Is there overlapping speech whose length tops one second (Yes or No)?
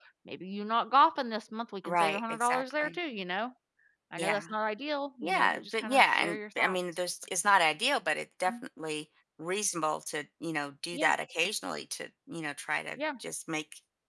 Yes